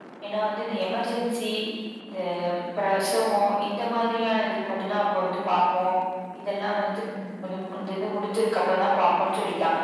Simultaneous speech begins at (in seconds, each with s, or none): none